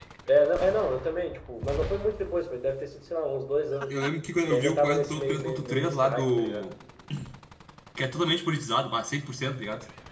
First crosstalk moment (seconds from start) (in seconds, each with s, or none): 4.5 s